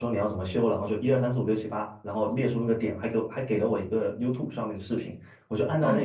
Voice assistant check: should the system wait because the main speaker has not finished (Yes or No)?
Yes